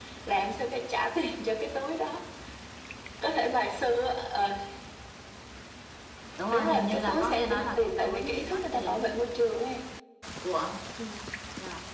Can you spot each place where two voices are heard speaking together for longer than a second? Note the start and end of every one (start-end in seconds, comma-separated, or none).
6.5-9.0